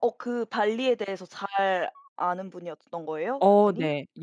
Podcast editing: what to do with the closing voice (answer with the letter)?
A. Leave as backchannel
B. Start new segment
B